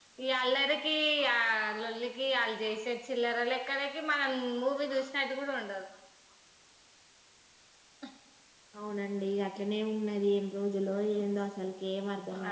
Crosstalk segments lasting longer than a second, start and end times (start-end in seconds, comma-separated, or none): none